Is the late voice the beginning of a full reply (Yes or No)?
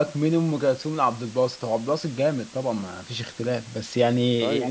No